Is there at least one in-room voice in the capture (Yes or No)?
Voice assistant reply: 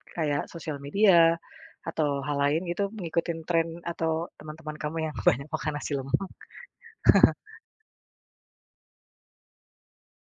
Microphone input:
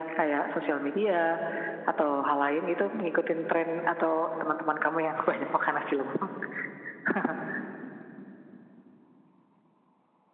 No